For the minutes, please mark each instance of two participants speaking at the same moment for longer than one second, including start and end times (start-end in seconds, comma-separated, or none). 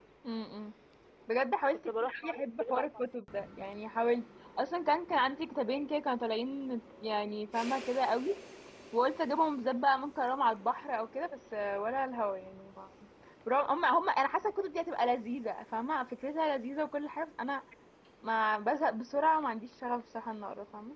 1.9-3.1